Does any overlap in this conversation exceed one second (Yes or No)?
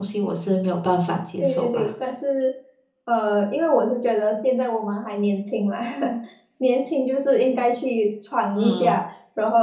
No